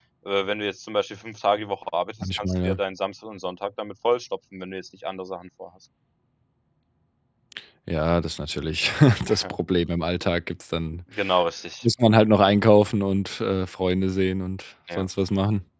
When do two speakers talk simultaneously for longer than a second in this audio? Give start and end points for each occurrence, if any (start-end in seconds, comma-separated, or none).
none